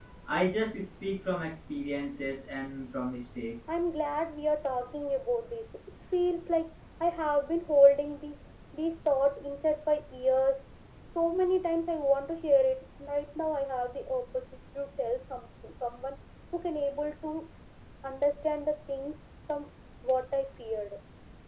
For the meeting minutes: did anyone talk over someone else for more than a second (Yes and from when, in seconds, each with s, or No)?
No